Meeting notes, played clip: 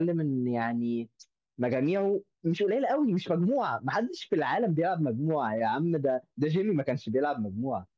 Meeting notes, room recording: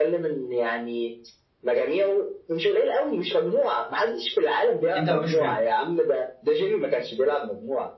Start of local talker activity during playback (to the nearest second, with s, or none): 5 s